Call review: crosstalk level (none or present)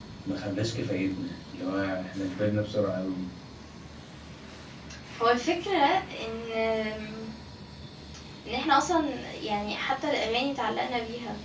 none